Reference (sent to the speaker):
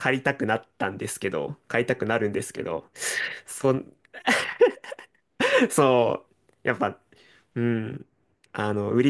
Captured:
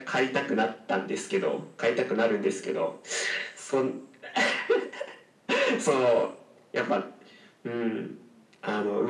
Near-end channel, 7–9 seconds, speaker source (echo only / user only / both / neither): echo only